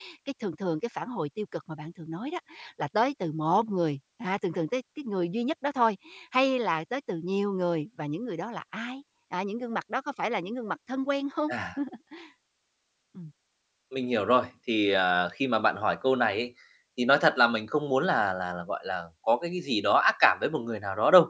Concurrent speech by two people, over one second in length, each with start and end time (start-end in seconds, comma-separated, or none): none